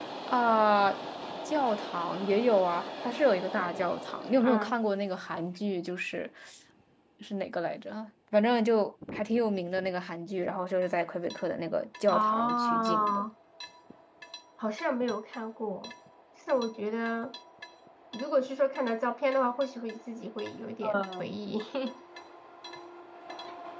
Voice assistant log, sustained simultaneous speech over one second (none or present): present